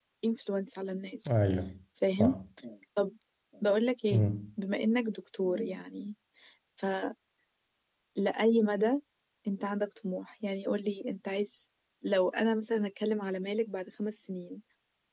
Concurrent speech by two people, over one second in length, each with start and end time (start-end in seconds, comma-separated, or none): none